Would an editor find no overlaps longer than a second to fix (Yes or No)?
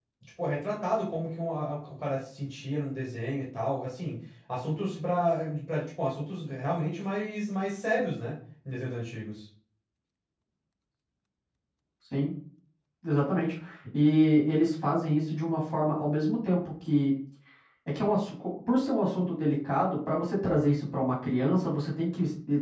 Yes